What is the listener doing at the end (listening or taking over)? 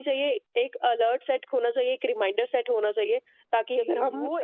taking over